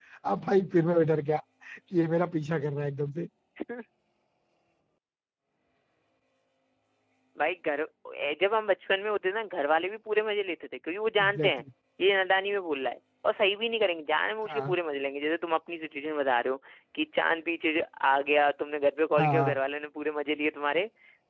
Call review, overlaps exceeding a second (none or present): none